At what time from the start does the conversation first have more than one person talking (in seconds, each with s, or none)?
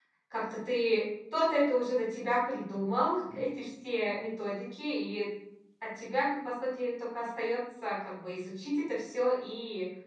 none